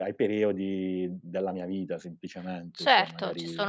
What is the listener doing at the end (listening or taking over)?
taking over